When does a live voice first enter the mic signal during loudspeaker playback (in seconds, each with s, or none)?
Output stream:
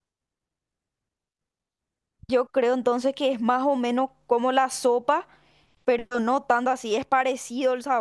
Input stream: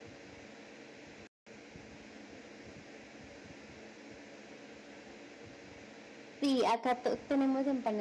6.4 s